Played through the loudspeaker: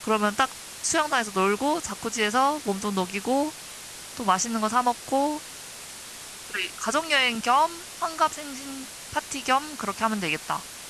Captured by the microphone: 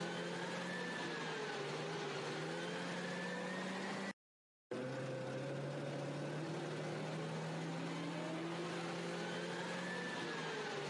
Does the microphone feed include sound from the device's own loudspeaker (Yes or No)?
No